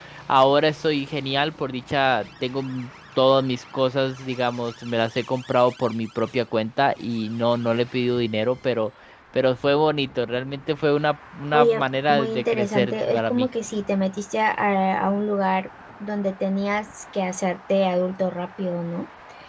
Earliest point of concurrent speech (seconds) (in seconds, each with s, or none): 11.5 s